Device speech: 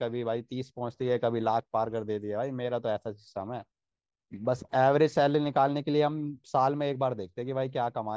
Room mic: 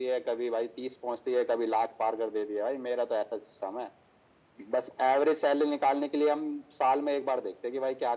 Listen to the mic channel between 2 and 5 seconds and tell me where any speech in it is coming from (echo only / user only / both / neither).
echo only